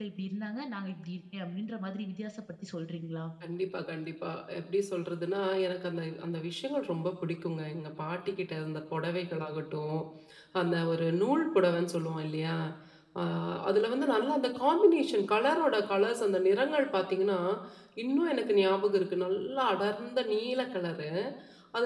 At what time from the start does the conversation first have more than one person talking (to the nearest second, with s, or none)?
none